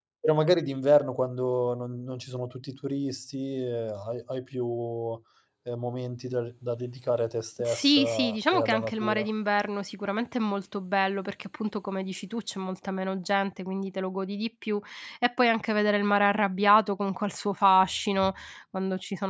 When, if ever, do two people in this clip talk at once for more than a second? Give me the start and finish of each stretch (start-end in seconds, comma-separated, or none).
7.6-9.3